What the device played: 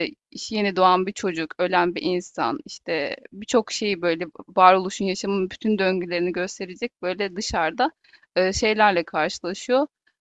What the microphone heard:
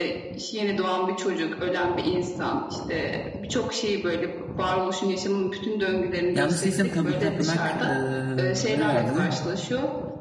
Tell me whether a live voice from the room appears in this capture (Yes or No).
Yes